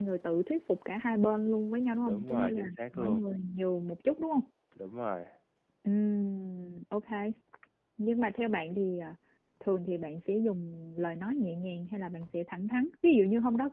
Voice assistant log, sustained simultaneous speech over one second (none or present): present